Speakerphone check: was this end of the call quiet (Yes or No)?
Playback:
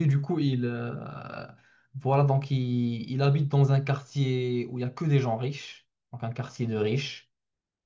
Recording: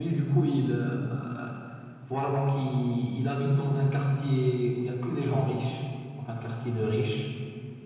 Yes